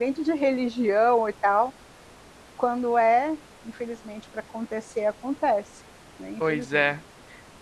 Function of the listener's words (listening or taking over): taking over